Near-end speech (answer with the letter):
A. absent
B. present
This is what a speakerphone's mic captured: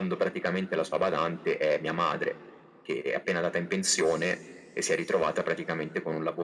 A